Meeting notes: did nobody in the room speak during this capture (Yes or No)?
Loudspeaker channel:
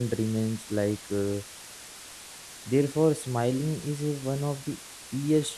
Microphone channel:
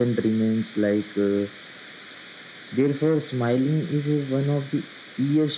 Yes